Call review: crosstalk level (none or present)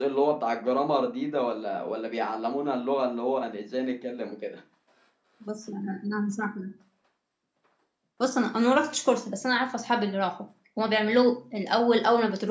none